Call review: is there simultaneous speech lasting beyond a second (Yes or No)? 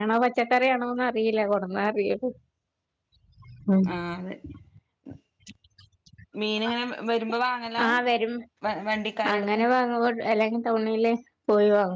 No